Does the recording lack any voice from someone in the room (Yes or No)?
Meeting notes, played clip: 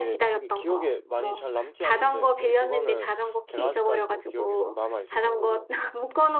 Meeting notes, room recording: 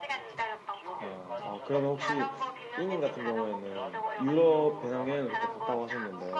No